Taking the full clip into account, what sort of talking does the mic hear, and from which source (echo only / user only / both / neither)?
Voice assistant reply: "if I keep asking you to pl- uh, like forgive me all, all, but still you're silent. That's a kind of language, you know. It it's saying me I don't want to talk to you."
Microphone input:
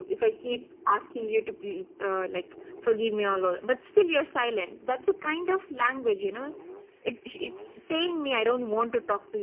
echo only